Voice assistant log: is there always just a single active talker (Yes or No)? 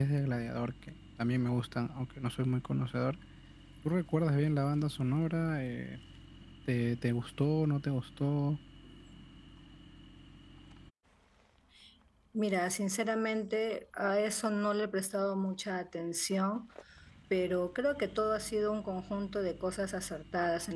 Yes